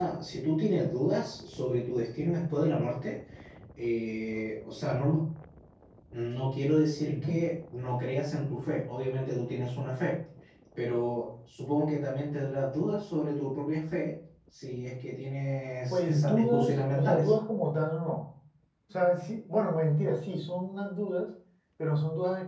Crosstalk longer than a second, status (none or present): present